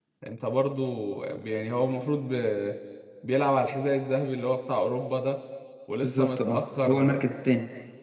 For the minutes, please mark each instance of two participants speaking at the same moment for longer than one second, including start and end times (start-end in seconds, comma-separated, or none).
6.0-7.3